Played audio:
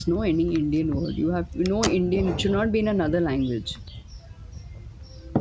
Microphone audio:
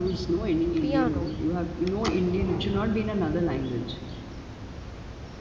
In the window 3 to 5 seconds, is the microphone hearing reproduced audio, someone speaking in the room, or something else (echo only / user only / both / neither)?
echo only